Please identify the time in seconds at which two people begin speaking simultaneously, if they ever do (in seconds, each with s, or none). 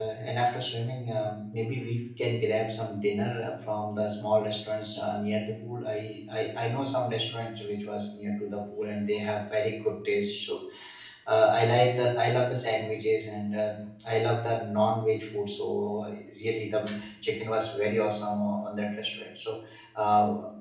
none